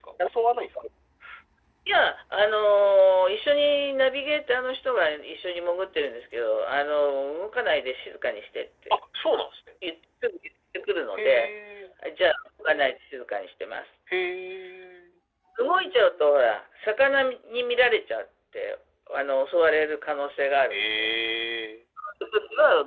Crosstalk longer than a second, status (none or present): none